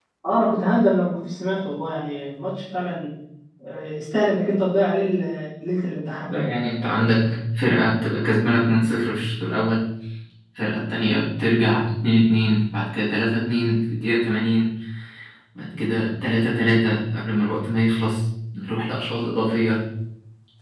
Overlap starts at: none

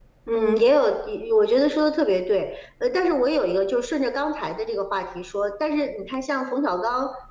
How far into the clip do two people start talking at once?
none

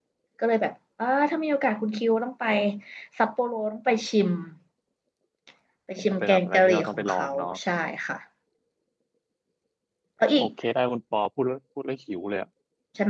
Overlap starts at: 6.0 s

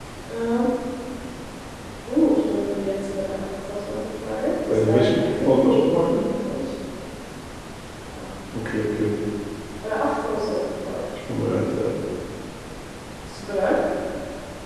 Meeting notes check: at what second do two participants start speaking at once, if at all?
4.7 s

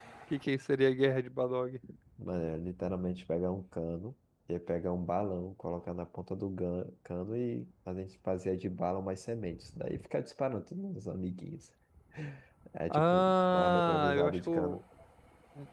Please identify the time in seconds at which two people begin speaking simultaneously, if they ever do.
12.9 s

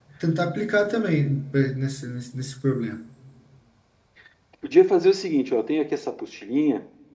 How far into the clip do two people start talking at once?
none

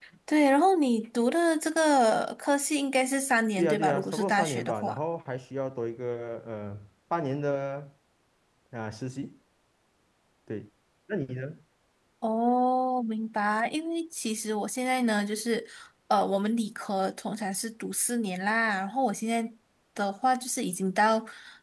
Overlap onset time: 3.6 s

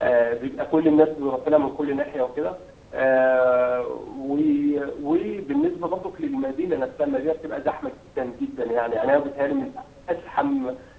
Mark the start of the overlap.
none

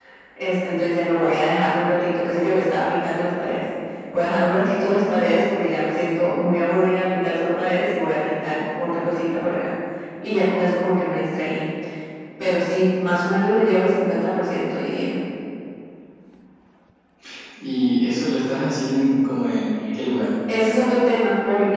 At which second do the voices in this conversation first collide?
none

